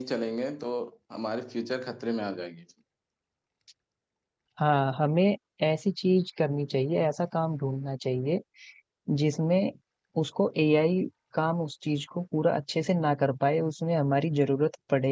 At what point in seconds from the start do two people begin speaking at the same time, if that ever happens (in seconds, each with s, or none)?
none